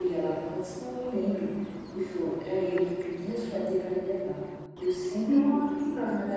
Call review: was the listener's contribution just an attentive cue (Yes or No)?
Yes